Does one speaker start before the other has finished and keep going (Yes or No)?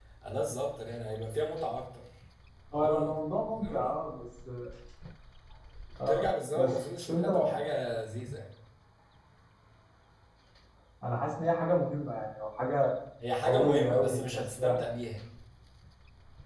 Yes